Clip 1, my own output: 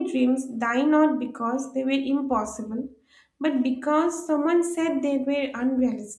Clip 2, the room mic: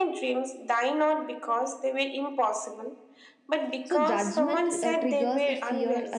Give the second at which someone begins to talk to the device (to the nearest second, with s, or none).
4 s